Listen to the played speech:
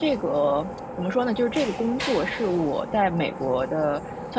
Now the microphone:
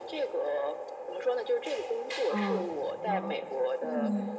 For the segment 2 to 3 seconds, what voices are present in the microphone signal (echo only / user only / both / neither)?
both